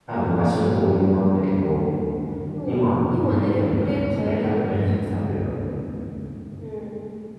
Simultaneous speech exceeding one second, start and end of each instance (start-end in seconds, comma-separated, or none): 2.6-4.8